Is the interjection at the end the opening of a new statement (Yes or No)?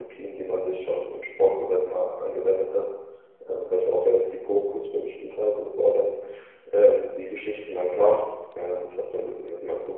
No